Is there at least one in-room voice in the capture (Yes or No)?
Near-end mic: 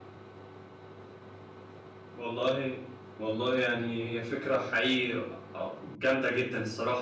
Yes